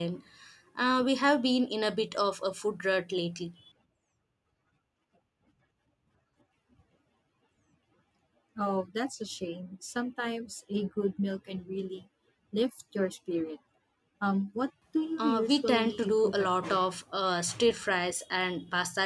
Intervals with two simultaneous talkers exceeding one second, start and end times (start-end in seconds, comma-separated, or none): 15.2-16.8